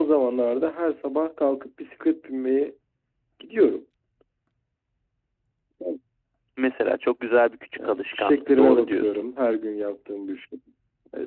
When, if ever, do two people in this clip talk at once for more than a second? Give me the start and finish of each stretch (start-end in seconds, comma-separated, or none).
7.8-9.1